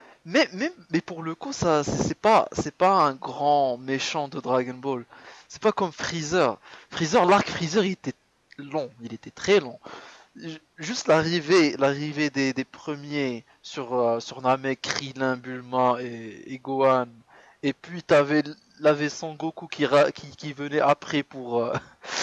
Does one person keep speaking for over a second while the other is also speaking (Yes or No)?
No